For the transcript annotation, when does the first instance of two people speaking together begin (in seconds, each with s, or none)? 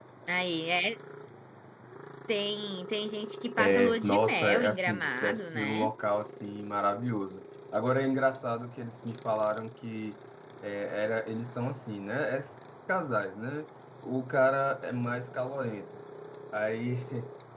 3.6 s